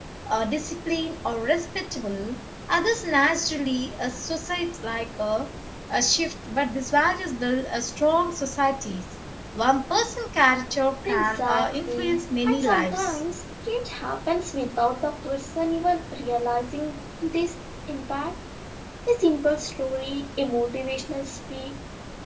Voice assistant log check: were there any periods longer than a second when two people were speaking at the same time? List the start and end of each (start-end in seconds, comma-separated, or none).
11.1-13.2